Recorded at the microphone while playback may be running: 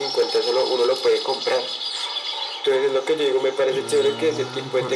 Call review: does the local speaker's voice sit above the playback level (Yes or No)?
No